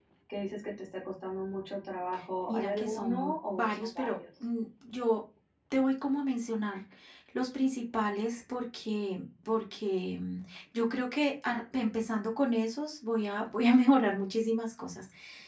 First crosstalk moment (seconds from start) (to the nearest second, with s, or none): 2 s